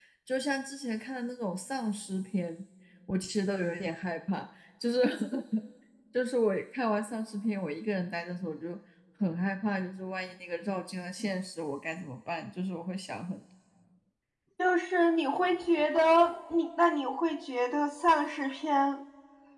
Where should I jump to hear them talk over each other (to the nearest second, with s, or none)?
none